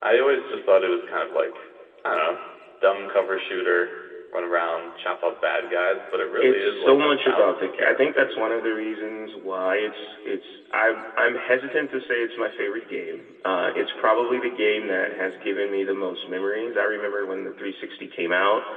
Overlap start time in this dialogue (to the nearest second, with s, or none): 6 s